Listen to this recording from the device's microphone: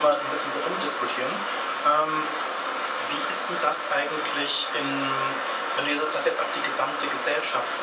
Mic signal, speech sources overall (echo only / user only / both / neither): echo only